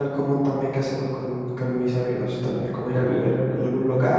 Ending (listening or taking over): listening